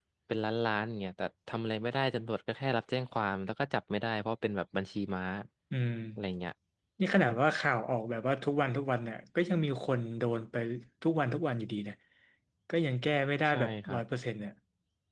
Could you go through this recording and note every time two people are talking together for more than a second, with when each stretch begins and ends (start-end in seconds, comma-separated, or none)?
none